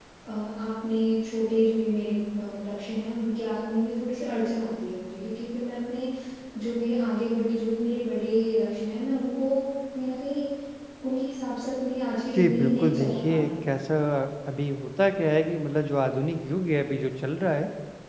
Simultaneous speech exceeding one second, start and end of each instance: 12.4-13.8

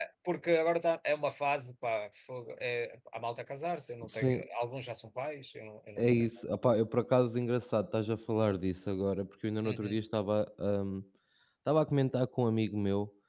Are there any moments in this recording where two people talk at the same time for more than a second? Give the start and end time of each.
none

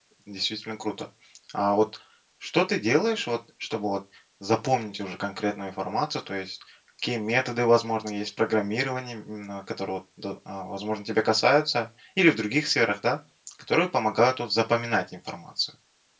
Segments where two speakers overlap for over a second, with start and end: none

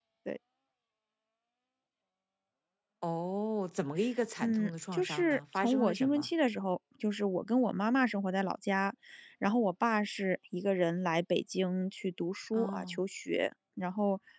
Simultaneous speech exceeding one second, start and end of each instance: 4.4-6.3

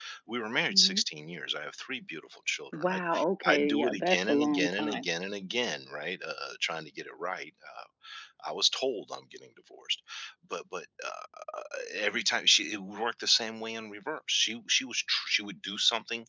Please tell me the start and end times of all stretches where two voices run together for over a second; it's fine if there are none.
3.5-5.0

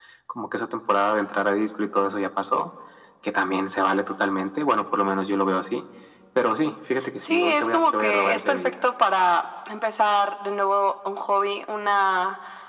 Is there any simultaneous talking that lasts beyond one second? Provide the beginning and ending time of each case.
7.2-8.7

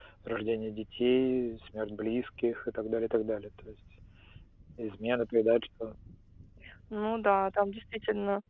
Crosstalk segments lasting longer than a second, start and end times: none

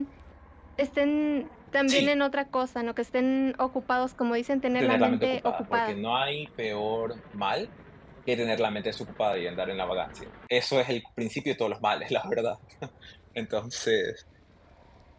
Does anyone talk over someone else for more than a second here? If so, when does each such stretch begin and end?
4.7-6.0

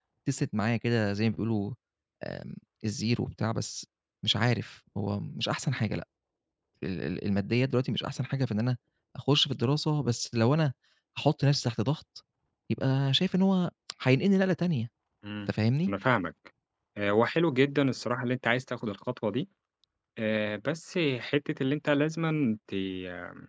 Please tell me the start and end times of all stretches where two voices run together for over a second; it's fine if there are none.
none

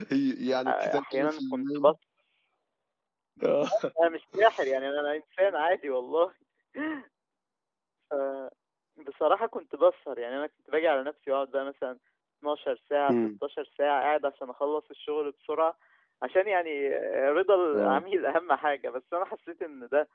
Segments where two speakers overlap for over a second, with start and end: 0.7-1.9

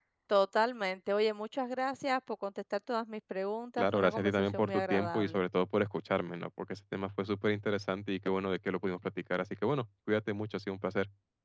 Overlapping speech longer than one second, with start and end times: 3.8-5.4

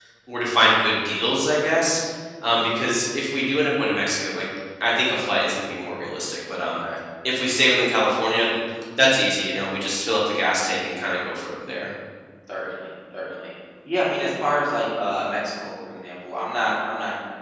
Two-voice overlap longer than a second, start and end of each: none

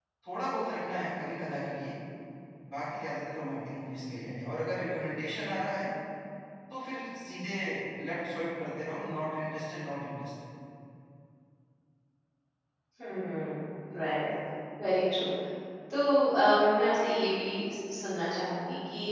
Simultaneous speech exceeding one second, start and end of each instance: none

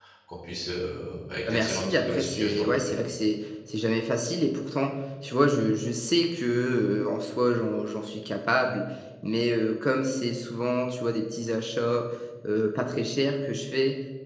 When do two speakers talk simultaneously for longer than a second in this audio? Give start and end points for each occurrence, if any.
1.5-3.0

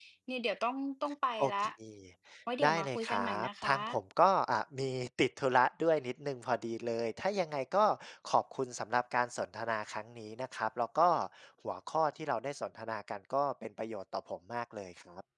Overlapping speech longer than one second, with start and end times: 2.6-4.0

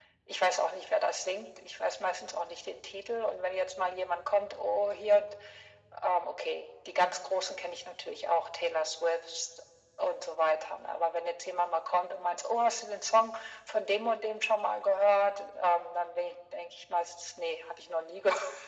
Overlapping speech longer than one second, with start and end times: none

